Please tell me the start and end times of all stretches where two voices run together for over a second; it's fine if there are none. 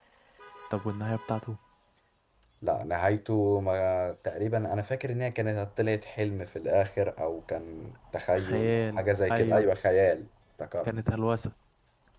8.3-9.6

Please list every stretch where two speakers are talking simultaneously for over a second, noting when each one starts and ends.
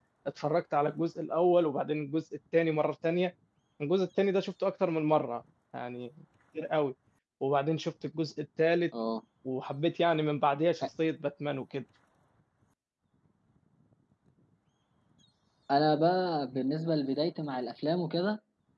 none

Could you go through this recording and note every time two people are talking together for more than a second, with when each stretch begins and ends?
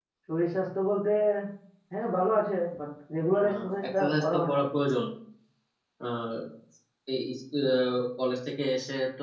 3.4-4.7

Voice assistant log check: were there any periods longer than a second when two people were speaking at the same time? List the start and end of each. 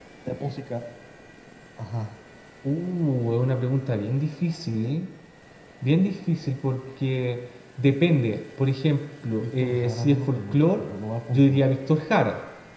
9.4-10.8

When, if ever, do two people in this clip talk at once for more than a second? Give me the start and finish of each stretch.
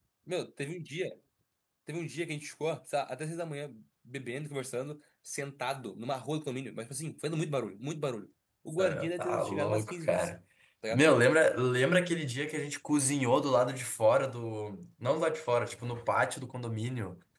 8.7-10.3

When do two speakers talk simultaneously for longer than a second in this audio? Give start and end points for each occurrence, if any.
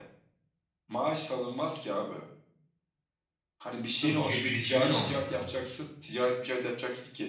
4.0-5.5

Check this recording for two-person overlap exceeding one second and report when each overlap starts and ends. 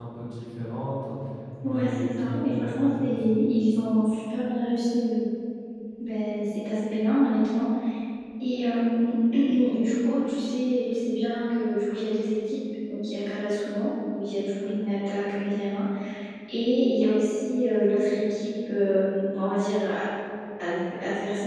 1.6-3.3

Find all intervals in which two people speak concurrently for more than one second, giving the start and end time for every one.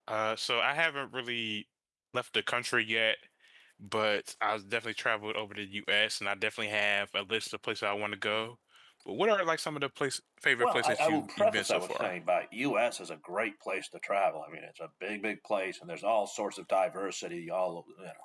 10.6-12.1

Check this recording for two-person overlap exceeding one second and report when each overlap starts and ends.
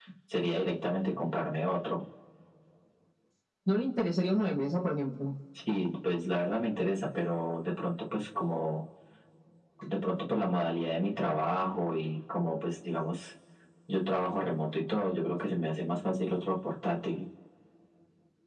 none

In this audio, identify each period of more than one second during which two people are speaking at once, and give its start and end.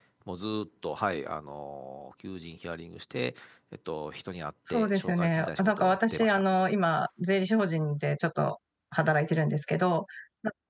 4.7-6.4

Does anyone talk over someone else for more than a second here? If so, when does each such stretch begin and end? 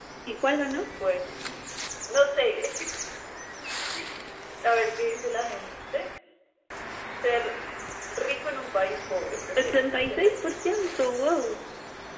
9.6-11.0

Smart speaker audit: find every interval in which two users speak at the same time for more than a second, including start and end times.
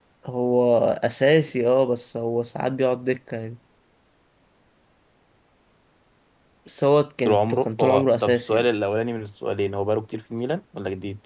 7.2-8.6

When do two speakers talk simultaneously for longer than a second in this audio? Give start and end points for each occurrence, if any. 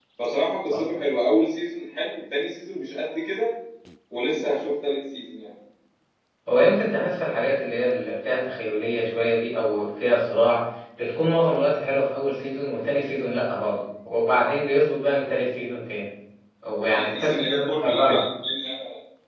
16.9-18.2

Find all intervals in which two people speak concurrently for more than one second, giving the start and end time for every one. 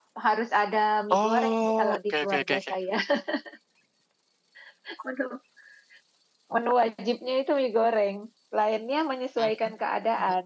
1.1-2.7

